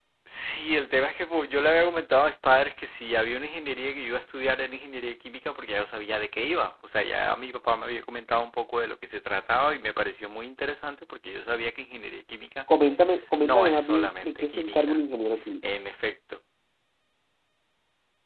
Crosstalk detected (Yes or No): Yes